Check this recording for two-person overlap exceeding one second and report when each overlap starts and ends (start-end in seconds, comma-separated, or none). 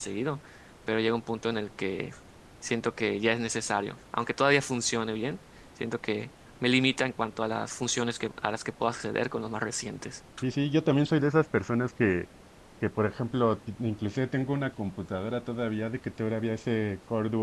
none